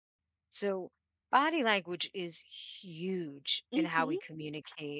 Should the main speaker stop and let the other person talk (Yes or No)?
No